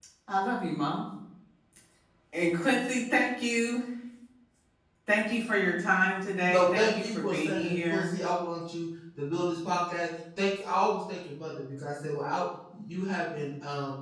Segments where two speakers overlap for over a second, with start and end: 6.5-8.1

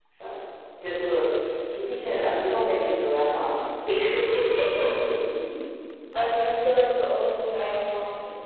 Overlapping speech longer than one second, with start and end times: none

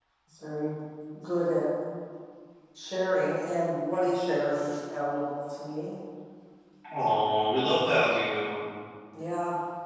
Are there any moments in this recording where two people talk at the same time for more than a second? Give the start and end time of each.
none

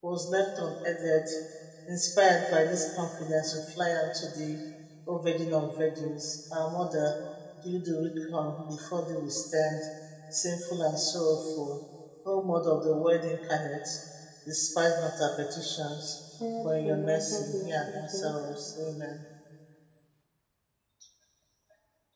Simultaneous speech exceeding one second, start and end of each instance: 16.6-18.3

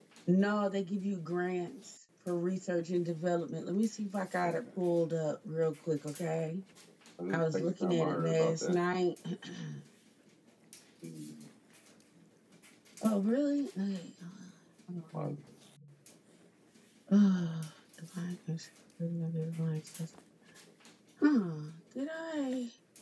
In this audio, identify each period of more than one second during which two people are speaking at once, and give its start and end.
7.3-8.8

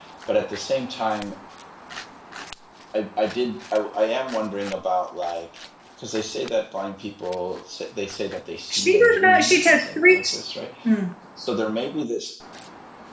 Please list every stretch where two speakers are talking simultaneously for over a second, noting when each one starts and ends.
8.7-10.2

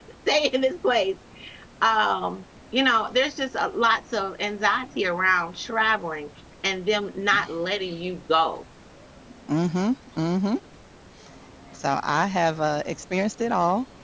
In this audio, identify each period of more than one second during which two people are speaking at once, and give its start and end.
none

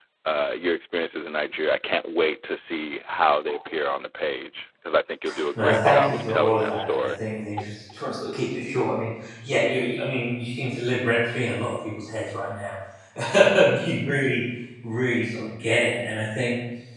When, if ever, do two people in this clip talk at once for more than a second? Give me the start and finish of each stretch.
5.5-7.1

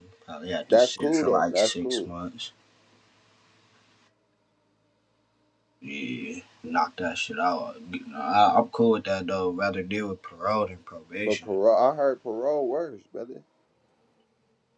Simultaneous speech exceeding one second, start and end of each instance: 0.7-2.0

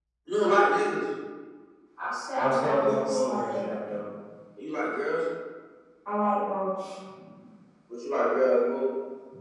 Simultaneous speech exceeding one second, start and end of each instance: 2.4-3.7

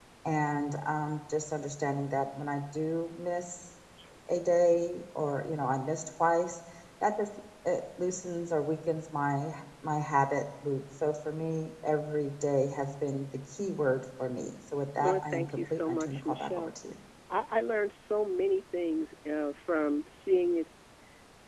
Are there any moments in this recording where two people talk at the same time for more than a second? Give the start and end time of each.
15.0-16.7

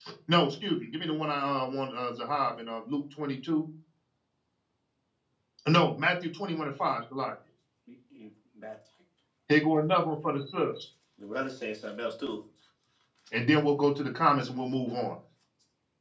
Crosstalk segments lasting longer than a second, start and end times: none

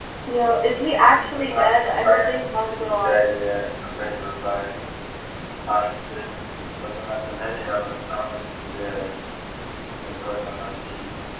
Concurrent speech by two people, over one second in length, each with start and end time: 1.3-3.4

